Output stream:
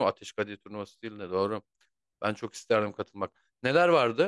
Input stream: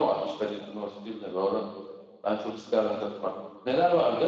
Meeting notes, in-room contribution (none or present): none